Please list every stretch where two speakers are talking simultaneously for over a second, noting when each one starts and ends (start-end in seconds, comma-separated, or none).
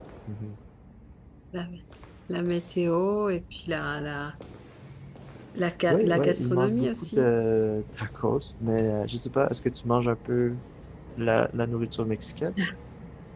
5.9-7.3